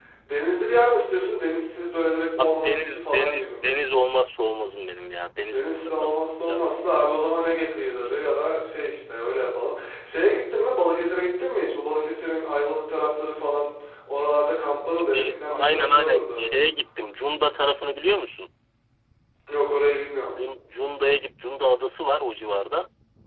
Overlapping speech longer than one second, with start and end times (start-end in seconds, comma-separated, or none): 2.4-3.7, 5.5-6.8, 15.1-16.5